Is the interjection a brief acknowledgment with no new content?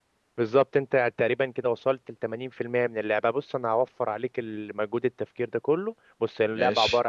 Yes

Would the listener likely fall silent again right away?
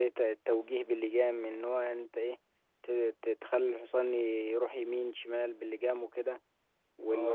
No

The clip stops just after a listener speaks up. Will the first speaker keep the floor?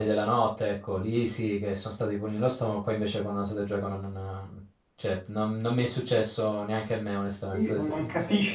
No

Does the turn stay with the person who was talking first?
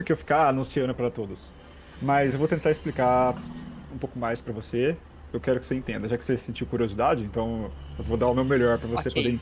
No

